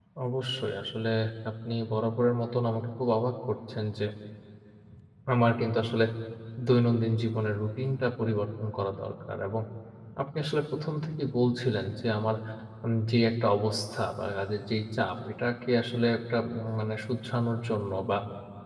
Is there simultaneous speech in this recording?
No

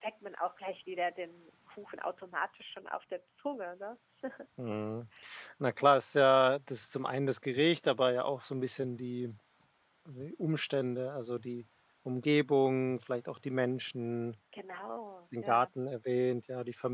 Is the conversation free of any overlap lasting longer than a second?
Yes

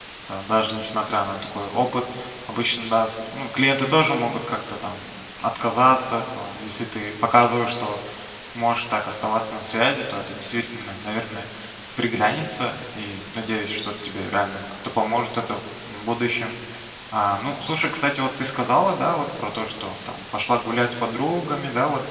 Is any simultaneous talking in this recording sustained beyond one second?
No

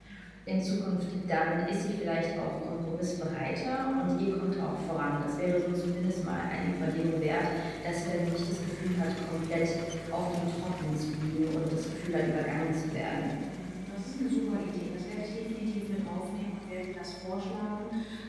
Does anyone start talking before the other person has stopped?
No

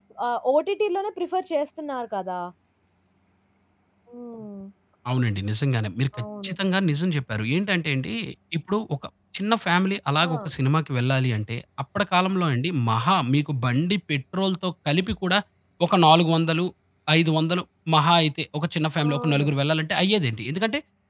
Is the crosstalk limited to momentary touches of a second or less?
Yes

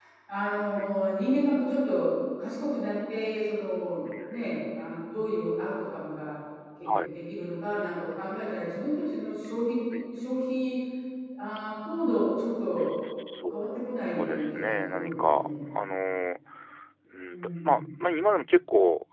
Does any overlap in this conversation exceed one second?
Yes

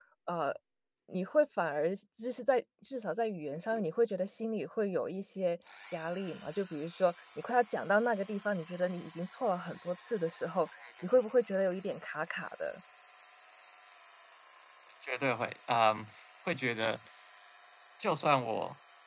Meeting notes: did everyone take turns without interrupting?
Yes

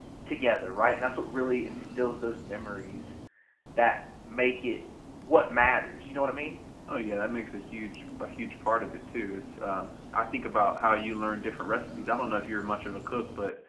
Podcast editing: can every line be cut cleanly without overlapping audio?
Yes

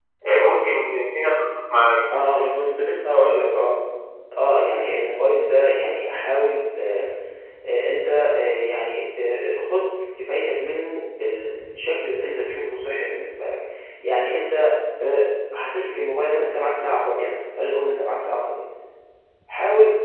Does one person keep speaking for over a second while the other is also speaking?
No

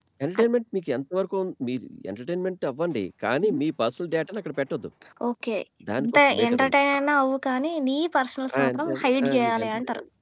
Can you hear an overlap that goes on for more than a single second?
Yes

